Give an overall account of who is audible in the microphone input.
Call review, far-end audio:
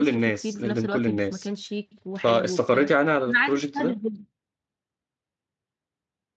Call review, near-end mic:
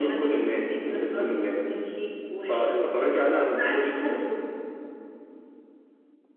echo only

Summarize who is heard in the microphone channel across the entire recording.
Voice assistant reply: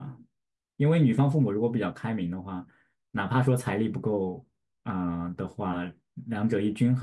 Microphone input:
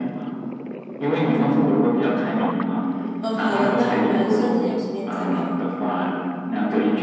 both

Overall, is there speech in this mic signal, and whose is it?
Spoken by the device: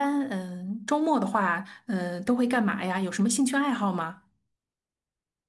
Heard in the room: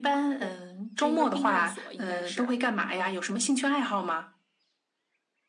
both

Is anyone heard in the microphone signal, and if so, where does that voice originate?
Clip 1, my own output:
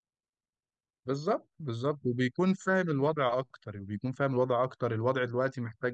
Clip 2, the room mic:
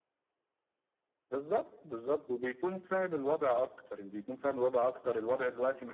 echo only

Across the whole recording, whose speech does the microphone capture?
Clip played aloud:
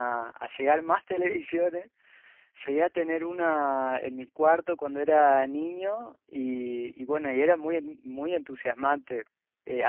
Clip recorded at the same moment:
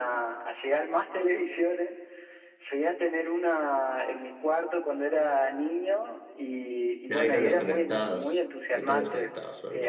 both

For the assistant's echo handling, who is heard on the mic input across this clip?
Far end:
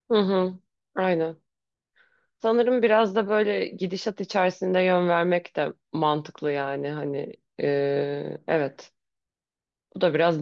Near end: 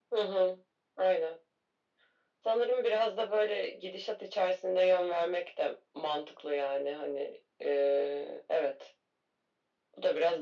echo only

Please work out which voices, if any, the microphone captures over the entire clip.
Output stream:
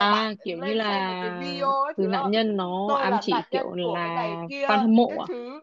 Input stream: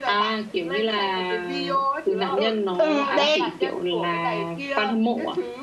both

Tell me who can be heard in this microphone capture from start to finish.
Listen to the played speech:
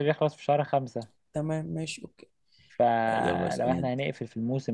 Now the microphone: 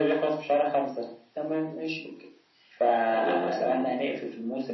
echo only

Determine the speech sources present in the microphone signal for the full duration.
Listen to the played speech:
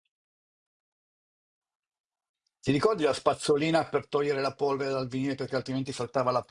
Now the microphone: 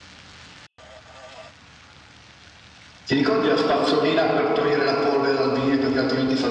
echo only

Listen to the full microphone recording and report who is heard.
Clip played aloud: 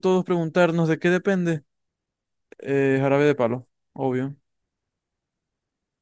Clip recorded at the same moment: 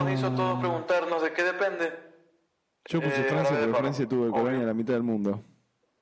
both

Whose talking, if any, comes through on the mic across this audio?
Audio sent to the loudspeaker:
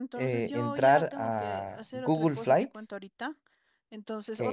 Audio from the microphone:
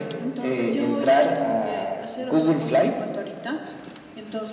echo only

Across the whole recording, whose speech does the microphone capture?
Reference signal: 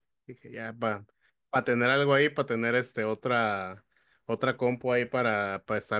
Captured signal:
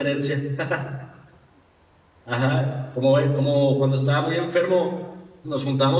user only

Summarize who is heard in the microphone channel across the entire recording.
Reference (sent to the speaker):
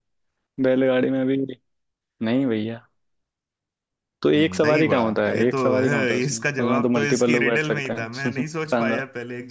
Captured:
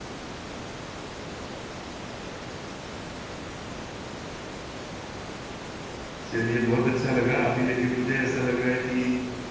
user only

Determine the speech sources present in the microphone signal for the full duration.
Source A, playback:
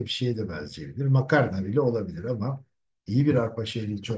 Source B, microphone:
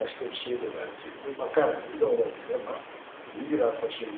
echo only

